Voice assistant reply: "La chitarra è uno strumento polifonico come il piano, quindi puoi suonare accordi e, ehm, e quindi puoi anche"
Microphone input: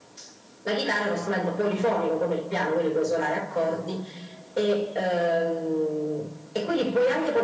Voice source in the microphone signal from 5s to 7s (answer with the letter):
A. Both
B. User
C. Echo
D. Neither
C